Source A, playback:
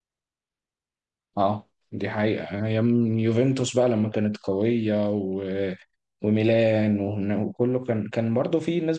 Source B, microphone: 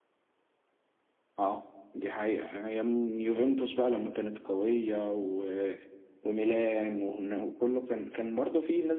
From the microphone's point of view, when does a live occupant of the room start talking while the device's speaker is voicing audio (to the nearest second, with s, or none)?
none